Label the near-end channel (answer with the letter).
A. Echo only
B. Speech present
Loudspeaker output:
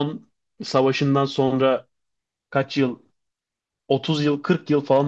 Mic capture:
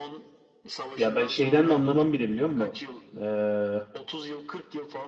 B